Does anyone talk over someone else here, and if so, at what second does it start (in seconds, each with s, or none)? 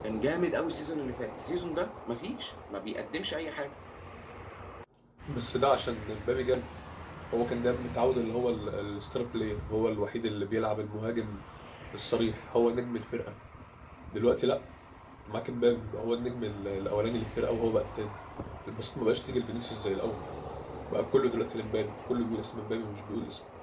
none